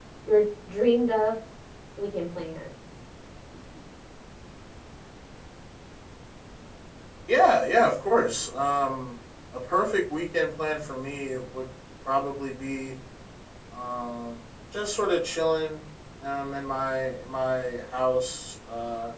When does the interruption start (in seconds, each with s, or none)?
none